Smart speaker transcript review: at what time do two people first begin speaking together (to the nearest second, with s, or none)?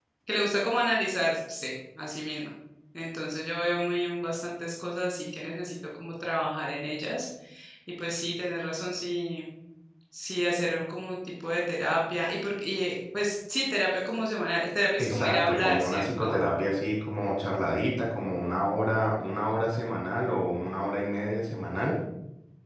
15 s